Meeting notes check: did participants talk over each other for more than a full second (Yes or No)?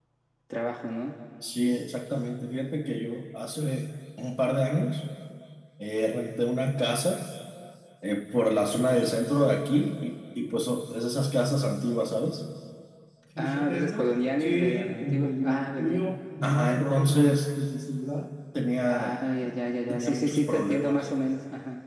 Yes